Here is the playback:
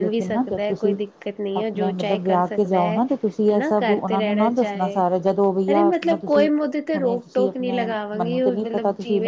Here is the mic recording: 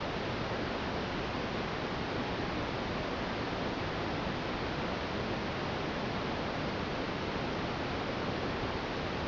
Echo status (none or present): none